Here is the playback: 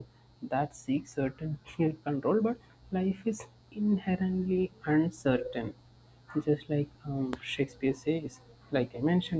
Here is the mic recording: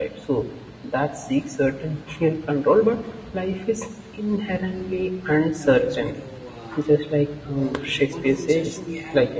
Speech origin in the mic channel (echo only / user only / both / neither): both